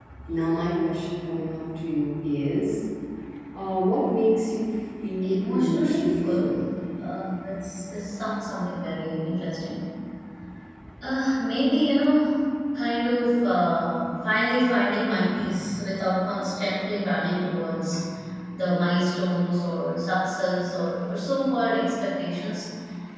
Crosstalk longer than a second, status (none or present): present